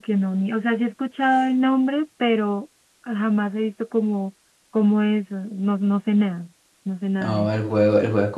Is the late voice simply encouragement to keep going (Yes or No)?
No